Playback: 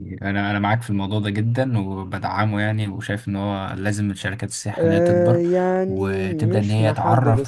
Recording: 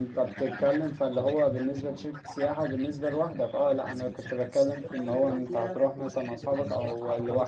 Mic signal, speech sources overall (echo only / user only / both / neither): both